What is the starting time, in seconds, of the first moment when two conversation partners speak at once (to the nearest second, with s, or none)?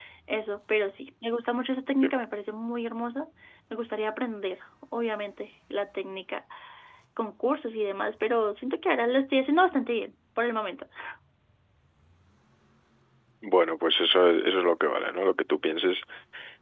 none